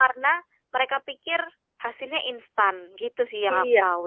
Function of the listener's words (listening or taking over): taking over